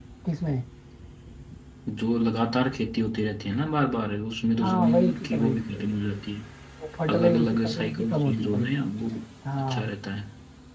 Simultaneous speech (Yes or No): Yes